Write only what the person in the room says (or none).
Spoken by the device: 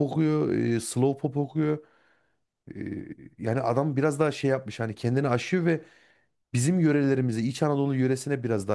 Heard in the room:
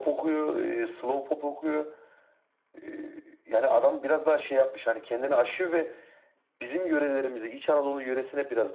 none